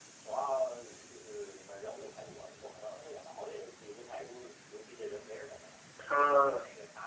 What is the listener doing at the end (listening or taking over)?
listening